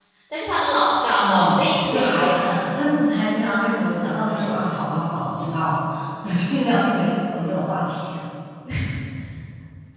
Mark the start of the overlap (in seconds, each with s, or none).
1.2 s